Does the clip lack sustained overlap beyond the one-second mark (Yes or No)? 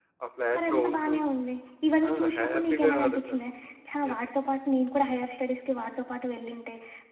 No